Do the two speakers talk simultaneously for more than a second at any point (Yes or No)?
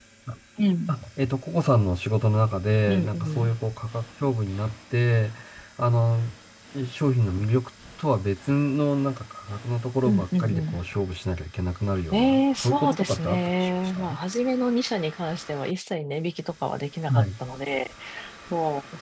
Yes